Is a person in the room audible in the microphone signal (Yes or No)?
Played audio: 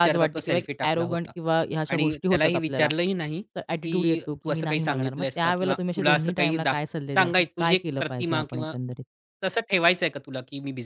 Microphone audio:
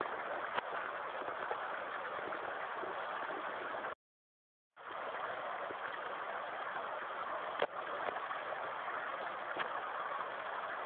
No